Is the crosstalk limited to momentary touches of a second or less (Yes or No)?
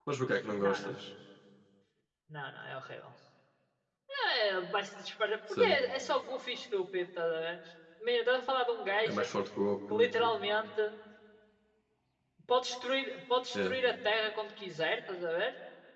Yes